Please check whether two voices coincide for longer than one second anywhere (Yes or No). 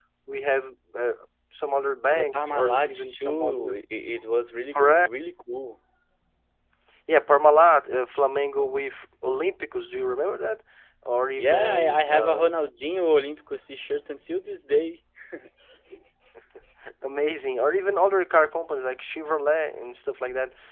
Yes